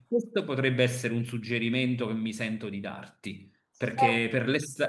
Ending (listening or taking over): listening